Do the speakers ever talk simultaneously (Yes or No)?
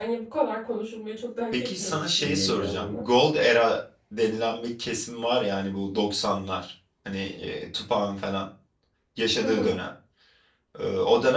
Yes